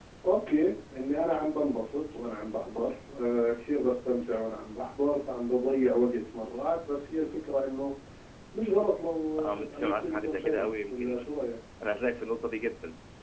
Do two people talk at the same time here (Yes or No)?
Yes